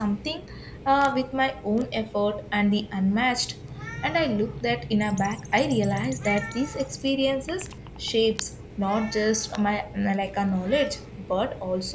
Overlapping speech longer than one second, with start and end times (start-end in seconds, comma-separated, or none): none